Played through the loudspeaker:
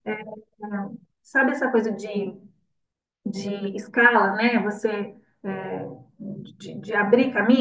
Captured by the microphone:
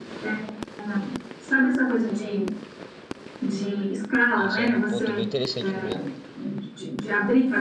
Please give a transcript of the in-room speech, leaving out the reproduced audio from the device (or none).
Isso é um ponto bem interessante mesmo.